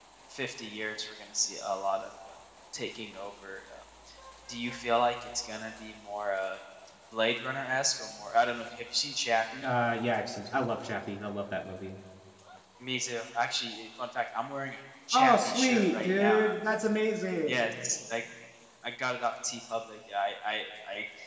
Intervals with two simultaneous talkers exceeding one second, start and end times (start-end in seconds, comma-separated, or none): 15.1-16.4